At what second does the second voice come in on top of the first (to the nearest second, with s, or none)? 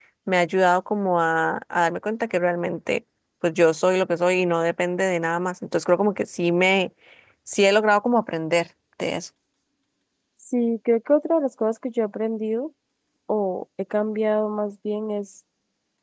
none